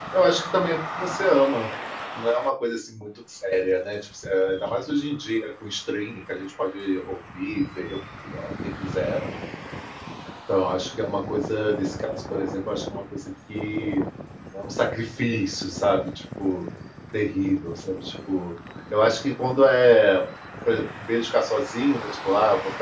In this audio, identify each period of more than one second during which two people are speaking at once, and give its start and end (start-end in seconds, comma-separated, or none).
none